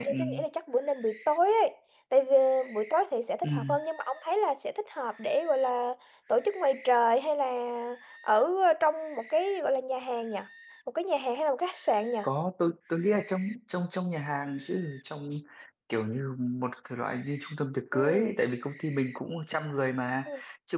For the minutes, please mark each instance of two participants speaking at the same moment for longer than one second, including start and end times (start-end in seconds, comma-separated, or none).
none